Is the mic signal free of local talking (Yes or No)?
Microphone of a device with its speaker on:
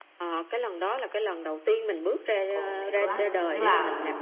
No